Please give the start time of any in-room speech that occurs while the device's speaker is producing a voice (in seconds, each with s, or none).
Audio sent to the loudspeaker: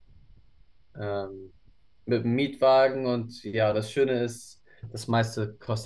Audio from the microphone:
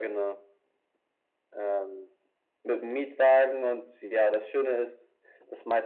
none